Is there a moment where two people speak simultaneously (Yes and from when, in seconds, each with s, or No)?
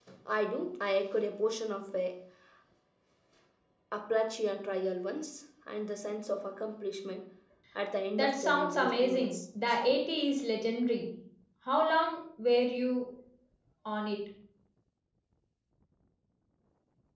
Yes, from 8.1 s